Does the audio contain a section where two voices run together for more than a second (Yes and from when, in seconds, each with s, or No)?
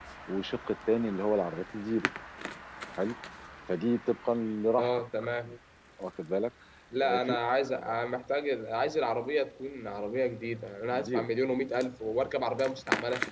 No